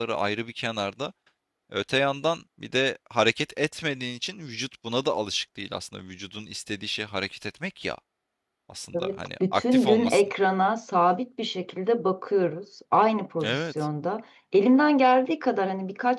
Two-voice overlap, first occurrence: 9.0 s

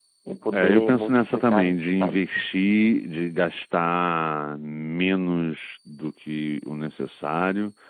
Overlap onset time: 0.5 s

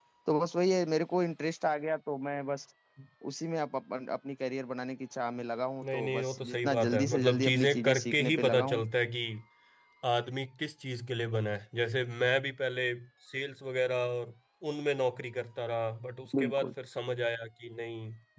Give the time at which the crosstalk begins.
5.8 s

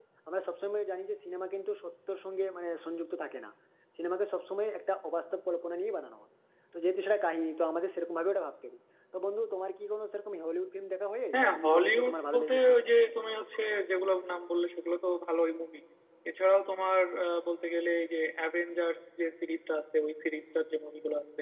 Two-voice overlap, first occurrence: 11.3 s

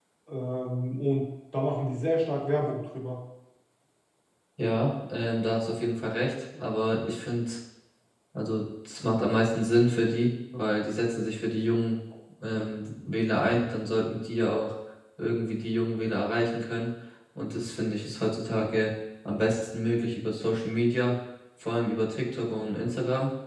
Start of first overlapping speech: none

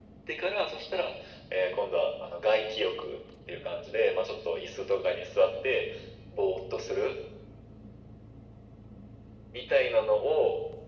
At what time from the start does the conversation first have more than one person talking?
none

